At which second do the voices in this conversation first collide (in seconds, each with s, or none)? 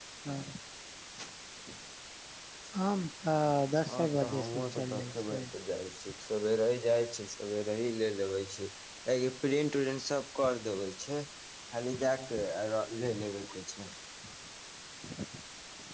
4.0 s